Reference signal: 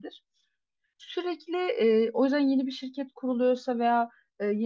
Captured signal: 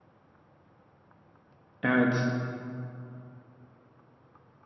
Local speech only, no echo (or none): Evet.